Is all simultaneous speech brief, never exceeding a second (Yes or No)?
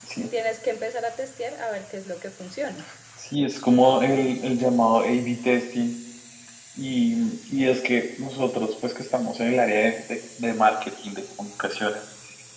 Yes